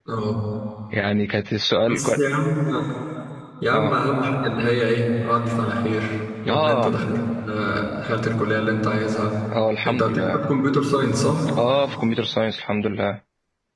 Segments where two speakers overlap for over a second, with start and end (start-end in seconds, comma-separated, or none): none